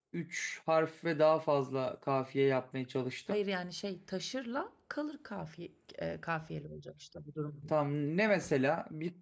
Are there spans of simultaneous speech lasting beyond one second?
No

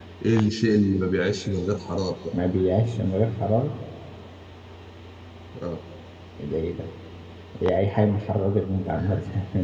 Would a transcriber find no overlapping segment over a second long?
Yes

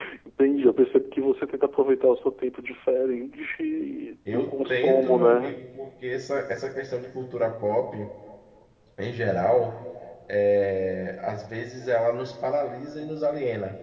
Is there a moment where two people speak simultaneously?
Yes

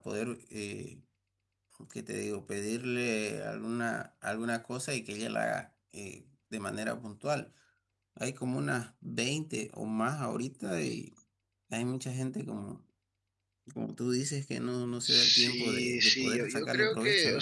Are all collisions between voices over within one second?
No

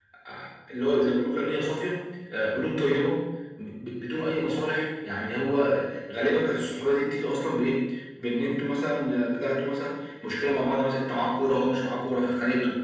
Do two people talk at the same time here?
No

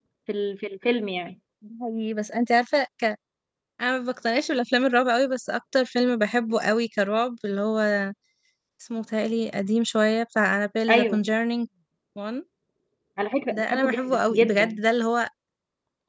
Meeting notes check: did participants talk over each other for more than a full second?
Yes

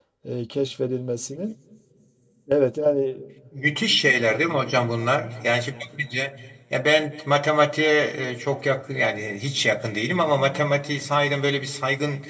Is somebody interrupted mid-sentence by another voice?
No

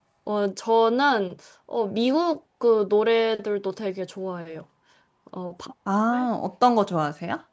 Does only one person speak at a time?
Yes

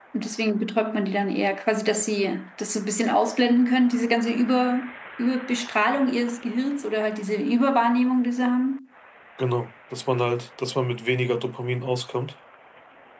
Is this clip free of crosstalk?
Yes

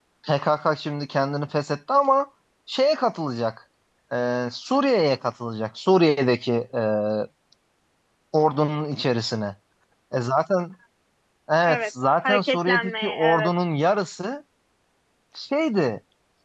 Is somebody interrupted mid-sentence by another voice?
Yes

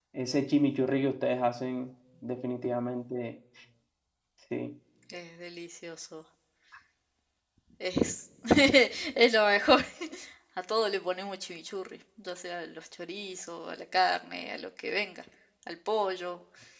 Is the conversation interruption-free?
Yes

